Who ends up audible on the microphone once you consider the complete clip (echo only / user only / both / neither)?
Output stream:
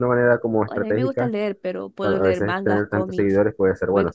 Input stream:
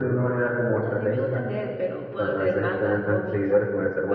echo only